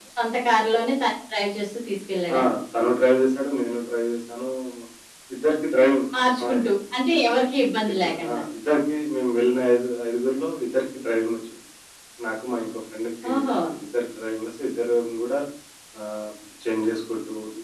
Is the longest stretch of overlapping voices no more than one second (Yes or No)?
Yes